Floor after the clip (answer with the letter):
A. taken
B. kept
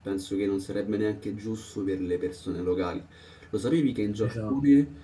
B